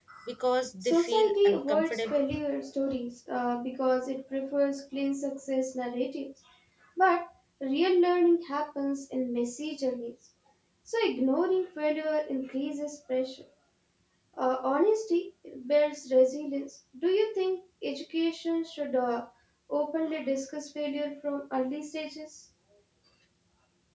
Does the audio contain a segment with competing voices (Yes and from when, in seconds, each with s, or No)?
Yes, from 0.8 s